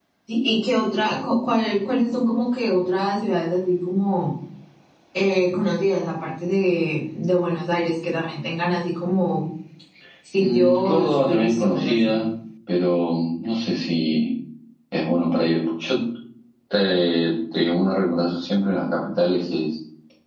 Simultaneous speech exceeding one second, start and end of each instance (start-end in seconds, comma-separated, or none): 10.4-12.2